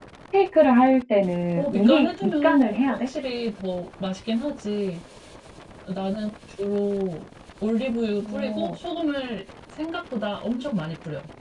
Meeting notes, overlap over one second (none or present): present